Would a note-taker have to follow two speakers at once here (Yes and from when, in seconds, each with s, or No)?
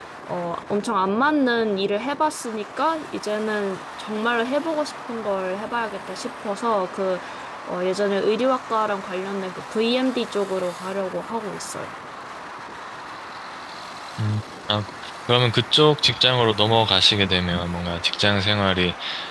No